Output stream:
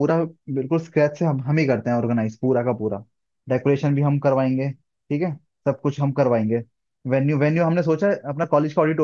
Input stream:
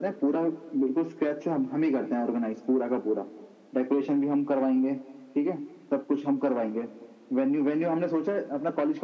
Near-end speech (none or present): none